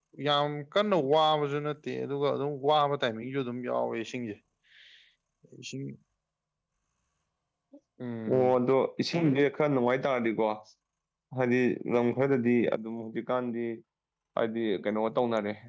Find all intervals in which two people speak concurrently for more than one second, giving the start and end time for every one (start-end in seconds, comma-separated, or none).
none